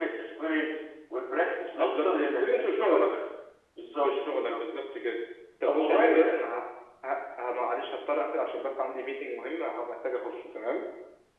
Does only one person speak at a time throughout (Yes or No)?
No